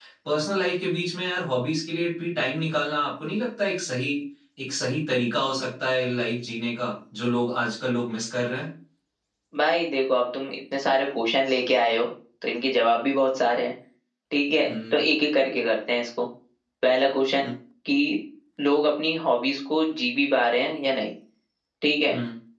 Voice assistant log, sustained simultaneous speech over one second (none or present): none